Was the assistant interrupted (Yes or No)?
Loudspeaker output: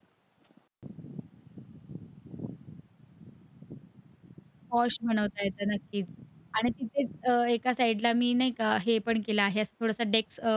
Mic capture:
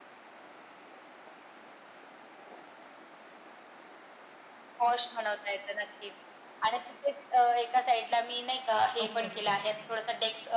Yes